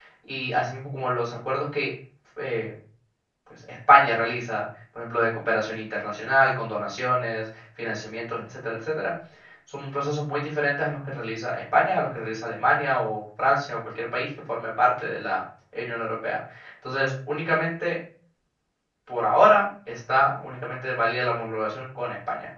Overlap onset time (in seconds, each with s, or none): none